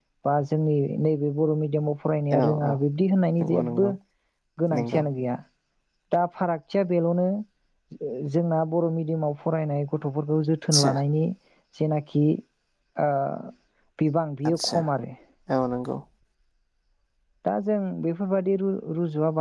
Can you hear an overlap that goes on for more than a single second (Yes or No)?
No